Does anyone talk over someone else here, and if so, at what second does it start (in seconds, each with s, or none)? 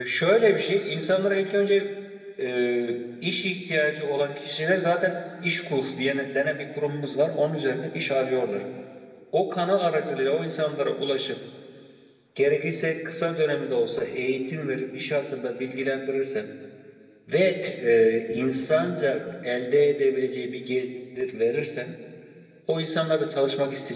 none